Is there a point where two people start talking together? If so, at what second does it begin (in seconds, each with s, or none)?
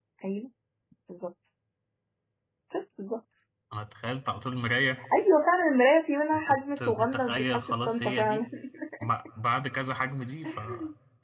6.3 s